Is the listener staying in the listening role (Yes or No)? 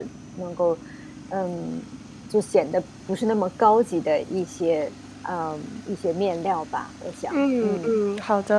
No